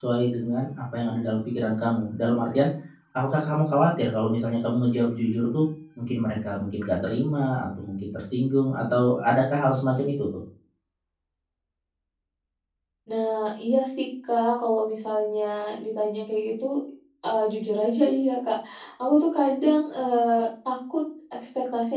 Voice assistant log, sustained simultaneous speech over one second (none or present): none